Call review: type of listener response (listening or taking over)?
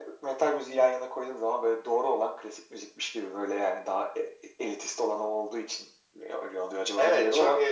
taking over